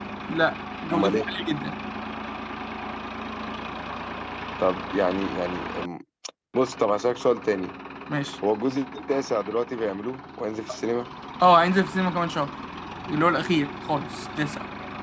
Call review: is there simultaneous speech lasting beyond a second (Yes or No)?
No